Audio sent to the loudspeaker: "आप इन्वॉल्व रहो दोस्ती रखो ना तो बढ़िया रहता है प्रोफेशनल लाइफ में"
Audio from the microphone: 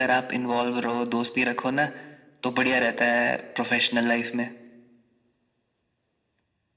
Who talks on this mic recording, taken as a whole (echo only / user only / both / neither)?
echo only